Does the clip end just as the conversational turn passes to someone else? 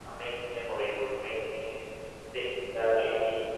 Yes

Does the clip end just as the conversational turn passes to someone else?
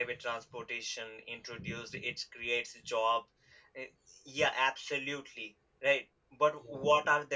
No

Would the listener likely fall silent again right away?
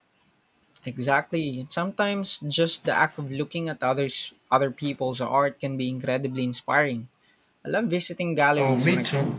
No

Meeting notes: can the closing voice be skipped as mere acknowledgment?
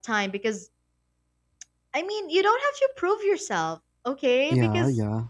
Yes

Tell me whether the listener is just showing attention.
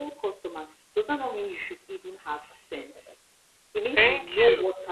Yes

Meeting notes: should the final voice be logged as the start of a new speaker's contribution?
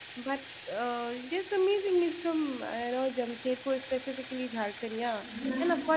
No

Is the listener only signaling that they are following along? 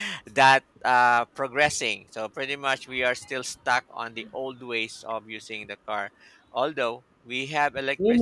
No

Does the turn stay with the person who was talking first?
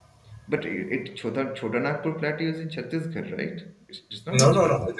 No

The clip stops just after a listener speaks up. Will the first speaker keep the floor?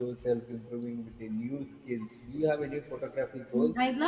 No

